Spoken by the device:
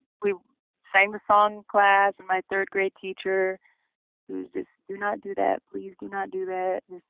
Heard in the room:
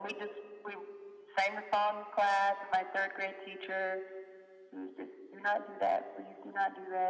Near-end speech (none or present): none